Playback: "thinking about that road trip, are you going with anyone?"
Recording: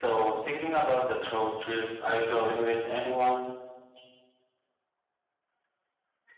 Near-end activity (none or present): none